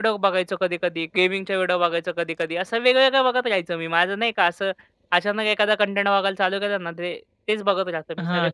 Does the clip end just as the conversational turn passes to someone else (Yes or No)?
Yes